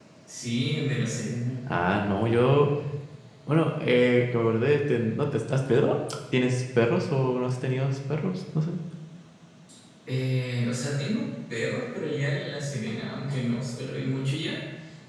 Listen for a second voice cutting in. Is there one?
No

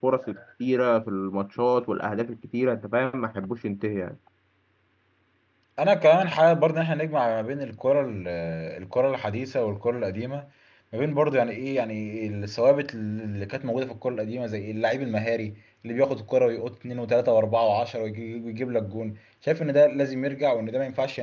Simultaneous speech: No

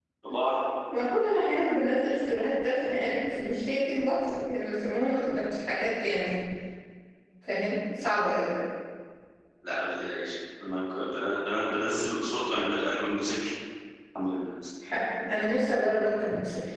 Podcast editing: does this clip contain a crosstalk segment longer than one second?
No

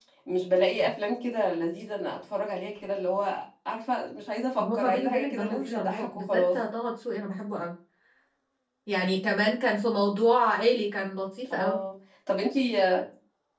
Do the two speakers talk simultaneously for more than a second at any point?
Yes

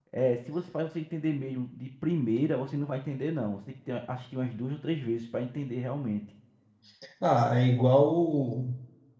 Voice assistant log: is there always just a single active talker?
Yes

